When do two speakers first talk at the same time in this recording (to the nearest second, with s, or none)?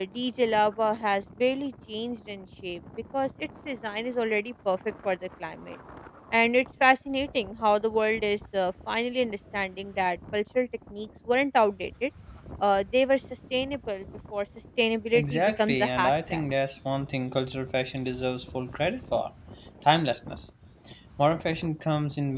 15 s